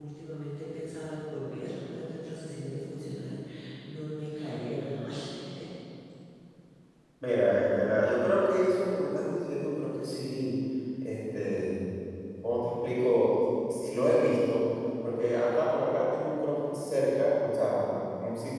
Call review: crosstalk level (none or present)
none